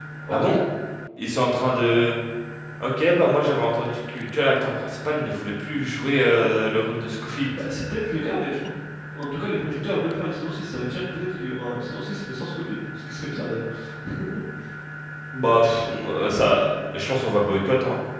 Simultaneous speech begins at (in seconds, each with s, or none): none